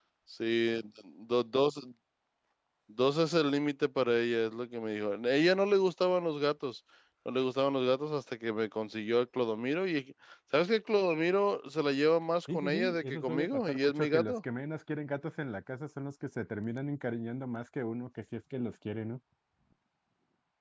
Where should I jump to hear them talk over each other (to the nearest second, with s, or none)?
12 s